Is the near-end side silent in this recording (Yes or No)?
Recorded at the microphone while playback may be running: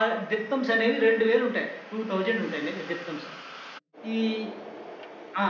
Yes